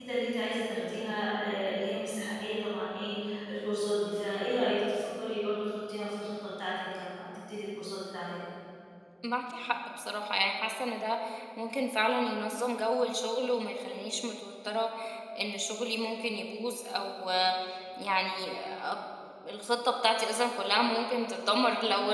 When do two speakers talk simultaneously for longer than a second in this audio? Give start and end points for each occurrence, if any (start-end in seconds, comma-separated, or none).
none